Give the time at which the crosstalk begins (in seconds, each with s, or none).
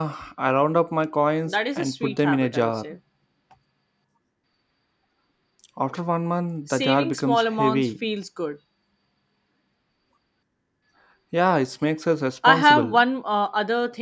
1.5 s